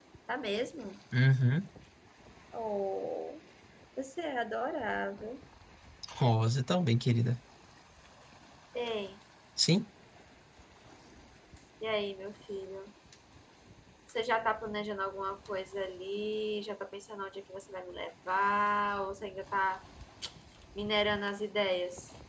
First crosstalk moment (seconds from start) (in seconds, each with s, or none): none